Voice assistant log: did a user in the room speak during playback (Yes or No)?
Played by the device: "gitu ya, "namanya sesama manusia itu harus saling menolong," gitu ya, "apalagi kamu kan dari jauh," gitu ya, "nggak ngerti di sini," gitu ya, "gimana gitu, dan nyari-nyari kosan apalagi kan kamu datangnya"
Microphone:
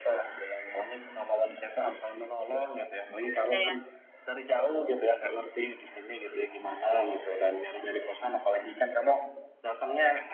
Yes